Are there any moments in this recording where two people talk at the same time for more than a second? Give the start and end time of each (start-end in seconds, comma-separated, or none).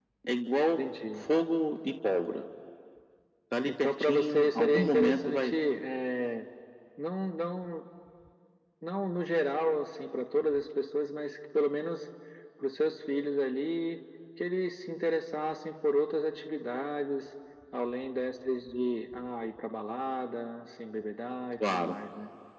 3.6-5.5